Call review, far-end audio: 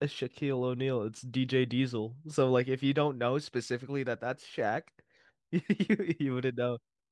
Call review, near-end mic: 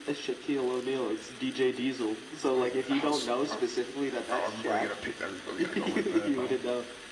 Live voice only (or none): What do you mean? How's are are we really gonna pick? Are we really gonna go with that? No.